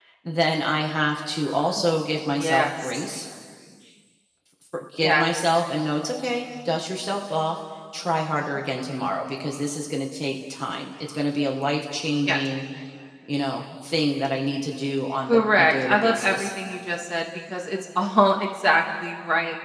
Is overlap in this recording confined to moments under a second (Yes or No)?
No